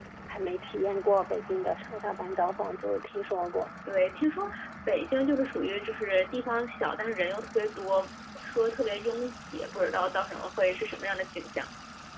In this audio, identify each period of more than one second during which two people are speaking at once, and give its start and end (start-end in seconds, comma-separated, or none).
none